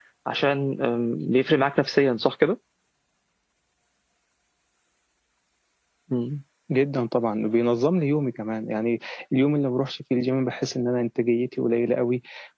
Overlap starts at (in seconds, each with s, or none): none